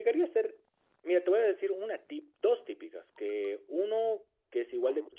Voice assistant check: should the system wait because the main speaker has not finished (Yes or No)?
Yes